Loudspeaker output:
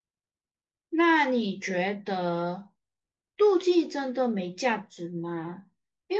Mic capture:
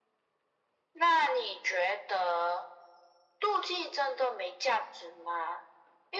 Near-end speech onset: none

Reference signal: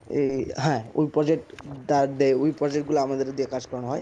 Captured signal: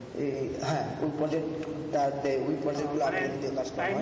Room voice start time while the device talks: 3 s

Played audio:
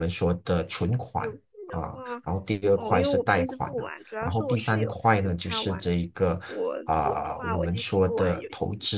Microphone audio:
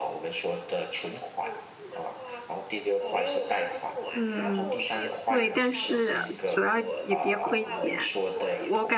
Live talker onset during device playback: 4 s

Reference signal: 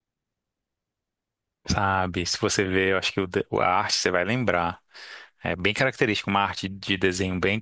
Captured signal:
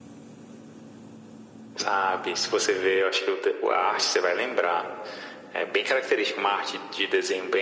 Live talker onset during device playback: none

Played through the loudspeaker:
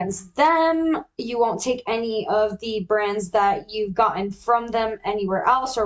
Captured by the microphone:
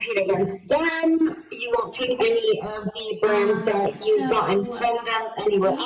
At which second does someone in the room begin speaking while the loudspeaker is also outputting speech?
3 s

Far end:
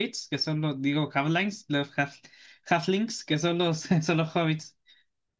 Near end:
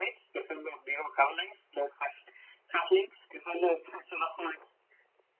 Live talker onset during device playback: none

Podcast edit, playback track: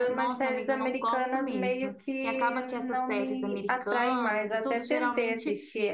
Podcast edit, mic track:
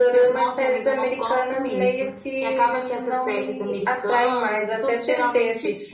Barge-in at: none

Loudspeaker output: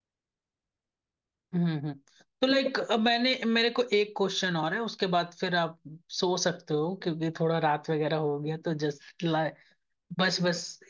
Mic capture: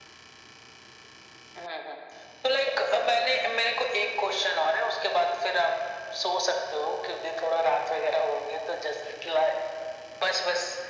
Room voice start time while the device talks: none

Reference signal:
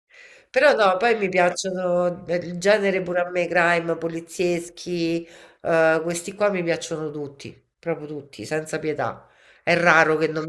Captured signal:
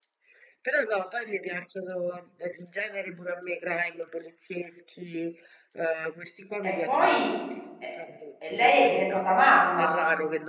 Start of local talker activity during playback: 7 s

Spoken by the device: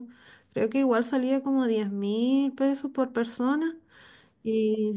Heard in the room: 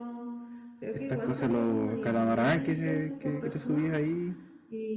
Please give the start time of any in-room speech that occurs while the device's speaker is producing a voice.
1 s

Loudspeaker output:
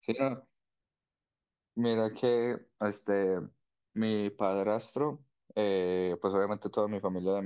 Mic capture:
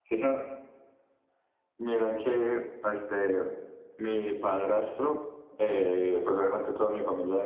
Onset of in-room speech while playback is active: none

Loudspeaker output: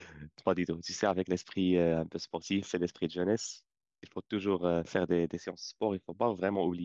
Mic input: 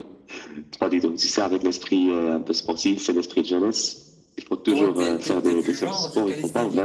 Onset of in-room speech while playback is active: 5 s

